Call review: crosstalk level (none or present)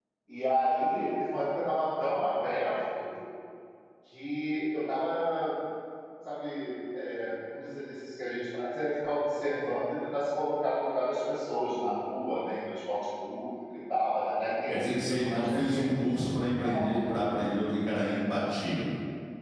present